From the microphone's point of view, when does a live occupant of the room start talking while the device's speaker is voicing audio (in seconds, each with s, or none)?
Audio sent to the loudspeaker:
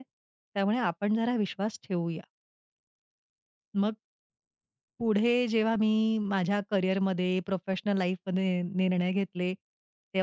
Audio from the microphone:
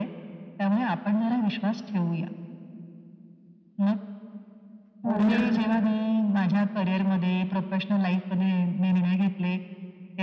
5.1 s